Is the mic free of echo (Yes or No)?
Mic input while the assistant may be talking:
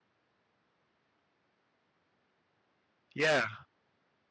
Yes